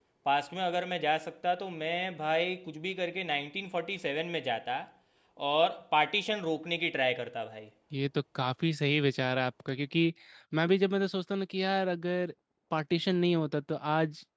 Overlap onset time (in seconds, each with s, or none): none